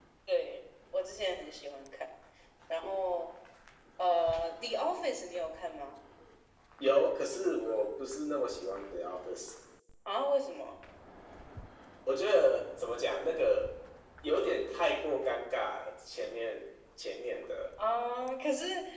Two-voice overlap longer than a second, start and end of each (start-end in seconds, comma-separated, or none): none